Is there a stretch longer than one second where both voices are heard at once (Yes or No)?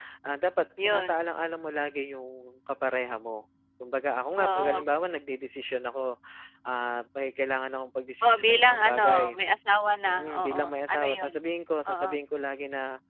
Yes